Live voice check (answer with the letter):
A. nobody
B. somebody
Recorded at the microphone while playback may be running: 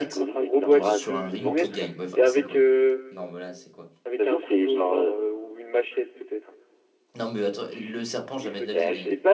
B